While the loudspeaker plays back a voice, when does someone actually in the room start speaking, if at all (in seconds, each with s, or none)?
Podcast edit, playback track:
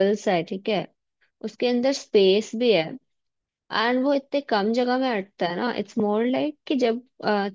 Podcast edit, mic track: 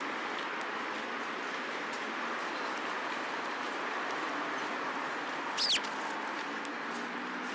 none